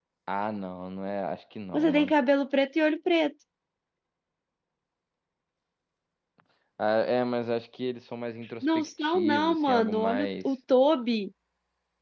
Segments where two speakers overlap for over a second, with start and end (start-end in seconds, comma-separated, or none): 8.6-10.5